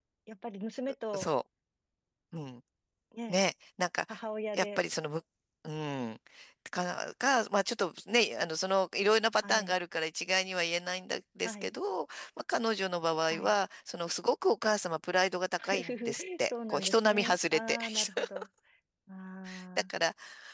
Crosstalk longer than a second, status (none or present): present